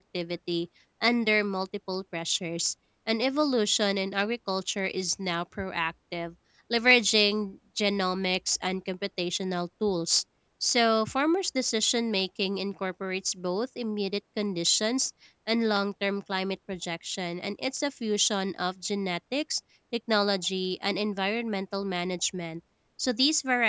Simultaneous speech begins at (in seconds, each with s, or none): none